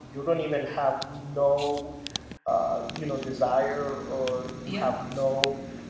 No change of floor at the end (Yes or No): Yes